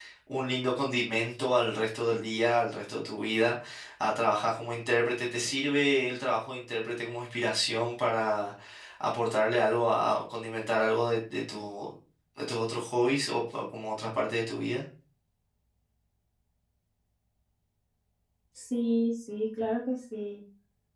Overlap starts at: none

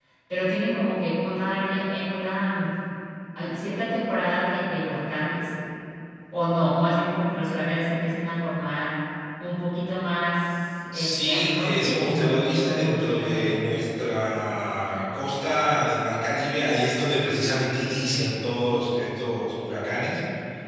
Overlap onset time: 11 s

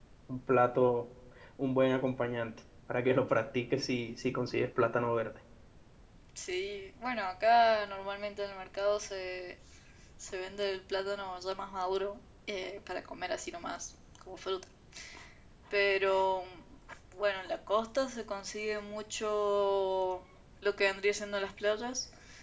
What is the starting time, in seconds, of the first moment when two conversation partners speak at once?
none

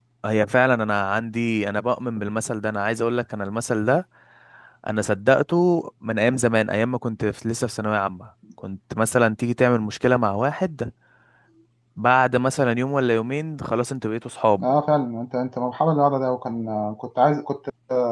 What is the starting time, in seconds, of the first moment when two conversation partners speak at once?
none

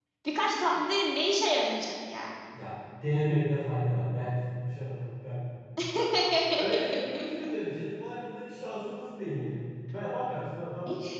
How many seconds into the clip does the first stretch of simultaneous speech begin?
none

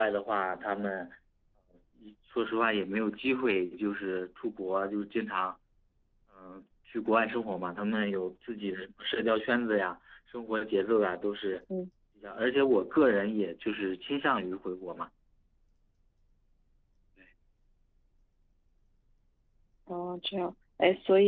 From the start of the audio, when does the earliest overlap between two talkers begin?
none

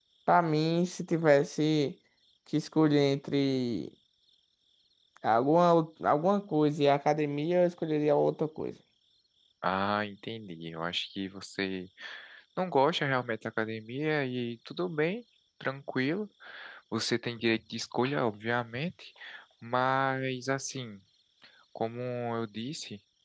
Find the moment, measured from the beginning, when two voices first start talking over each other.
none

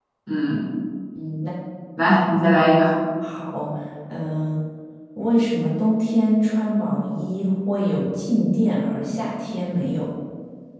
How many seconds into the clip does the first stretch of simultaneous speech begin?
none

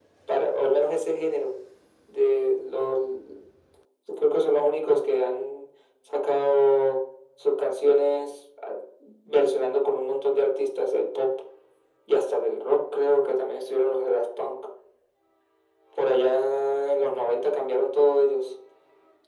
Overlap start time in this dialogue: none

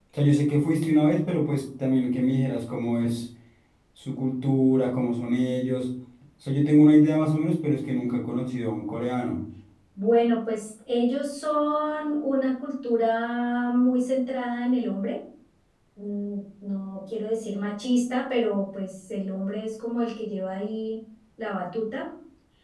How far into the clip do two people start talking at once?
none

